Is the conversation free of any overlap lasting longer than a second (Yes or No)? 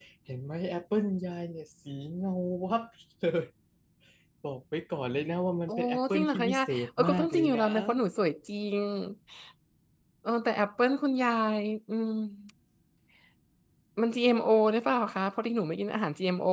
No